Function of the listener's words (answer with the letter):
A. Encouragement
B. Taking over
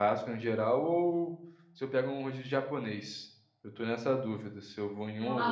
B